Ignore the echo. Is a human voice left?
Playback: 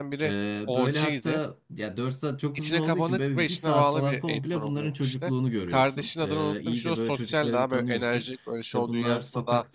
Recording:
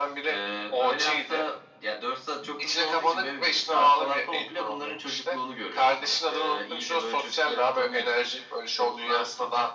No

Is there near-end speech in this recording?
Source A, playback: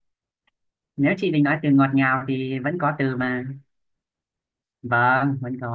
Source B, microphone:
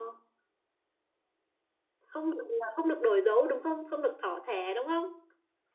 Yes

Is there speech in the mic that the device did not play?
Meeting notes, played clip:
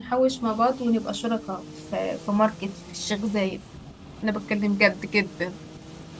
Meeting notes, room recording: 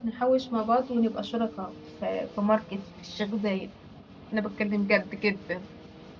No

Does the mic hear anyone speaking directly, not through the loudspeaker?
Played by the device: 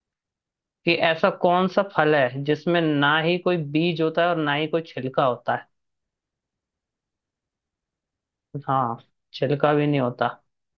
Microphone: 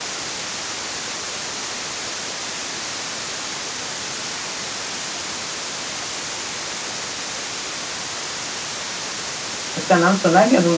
Yes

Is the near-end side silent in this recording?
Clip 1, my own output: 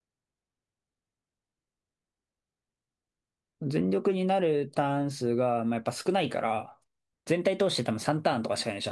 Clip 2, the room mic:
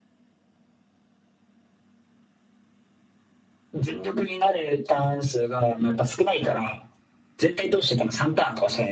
Yes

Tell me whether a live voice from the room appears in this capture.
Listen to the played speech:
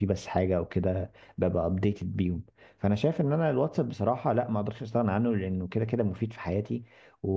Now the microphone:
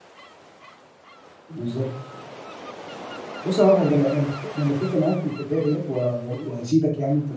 Yes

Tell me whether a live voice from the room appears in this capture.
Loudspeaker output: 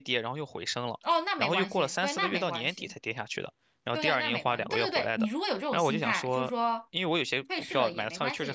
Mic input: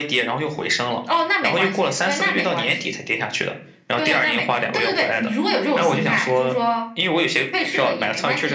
No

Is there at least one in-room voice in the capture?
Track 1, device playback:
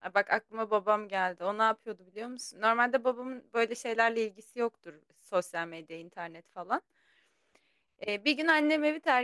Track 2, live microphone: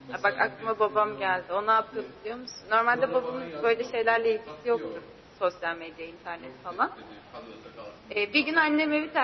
Yes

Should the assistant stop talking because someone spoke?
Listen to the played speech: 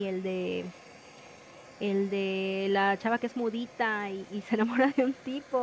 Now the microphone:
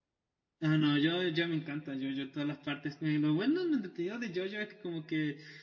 Yes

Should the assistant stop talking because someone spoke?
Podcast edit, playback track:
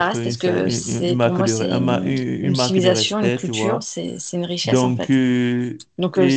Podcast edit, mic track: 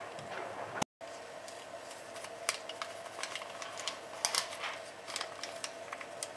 No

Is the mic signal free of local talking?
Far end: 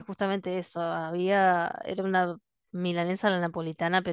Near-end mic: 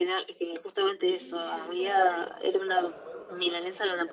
No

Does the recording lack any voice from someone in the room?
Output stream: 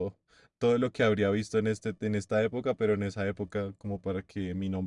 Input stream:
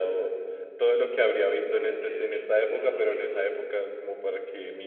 No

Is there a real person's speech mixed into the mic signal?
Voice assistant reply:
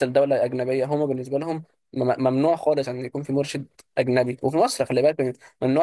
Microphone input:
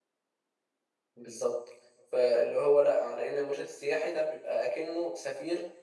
Yes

